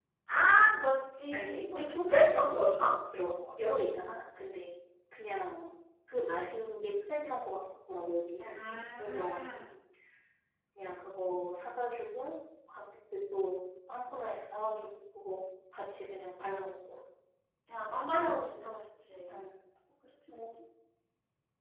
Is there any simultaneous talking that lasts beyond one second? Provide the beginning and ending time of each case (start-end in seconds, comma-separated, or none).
1.3-2.5